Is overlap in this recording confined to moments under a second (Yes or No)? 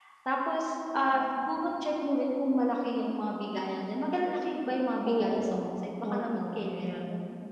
No